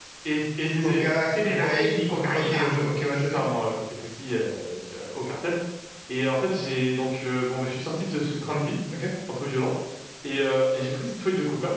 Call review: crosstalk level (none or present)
present